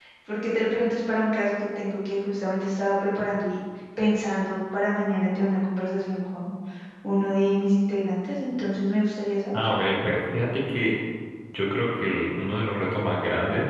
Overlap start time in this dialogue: none

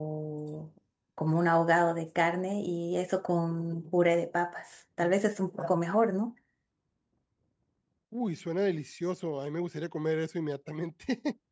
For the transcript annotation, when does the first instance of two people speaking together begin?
none

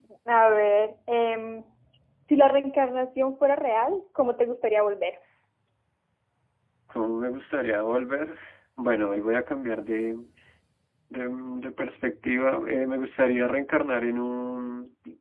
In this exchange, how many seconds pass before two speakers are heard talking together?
none

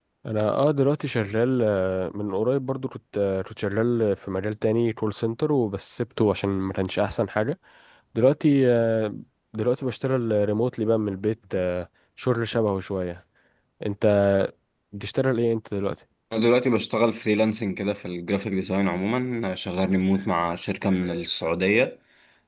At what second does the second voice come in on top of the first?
none

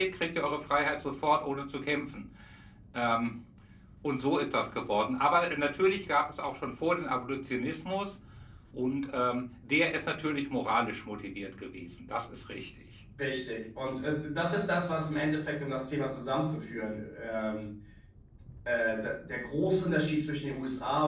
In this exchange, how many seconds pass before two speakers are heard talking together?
none

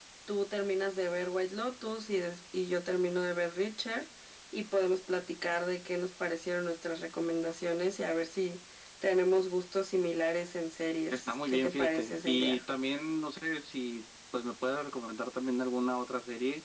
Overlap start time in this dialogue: 11.1 s

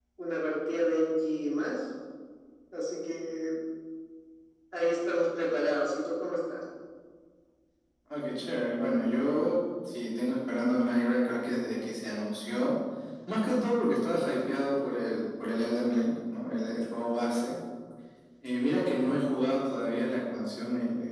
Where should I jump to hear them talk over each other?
none

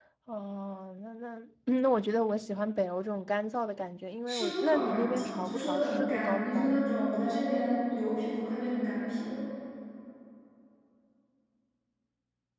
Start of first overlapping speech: 4.3 s

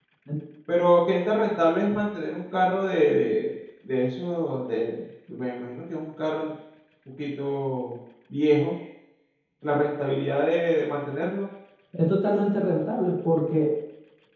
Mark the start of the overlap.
none

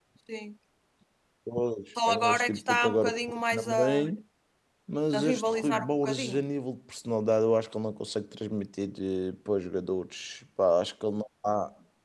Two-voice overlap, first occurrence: 2.1 s

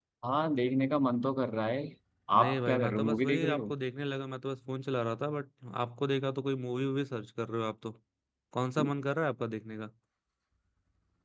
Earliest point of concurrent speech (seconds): 2.4 s

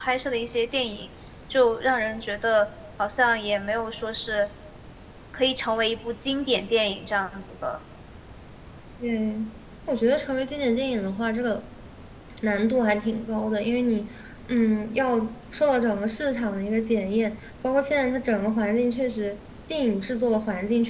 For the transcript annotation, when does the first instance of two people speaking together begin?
none

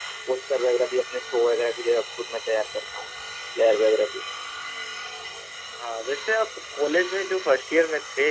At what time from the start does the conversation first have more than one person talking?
none

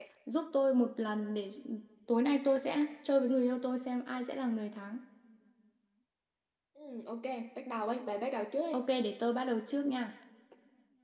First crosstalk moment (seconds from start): none

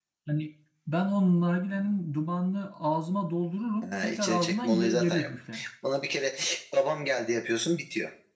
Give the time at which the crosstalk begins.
3.8 s

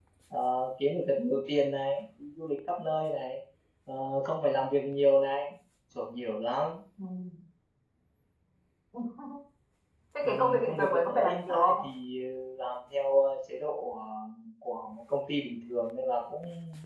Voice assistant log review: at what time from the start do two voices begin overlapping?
10.2 s

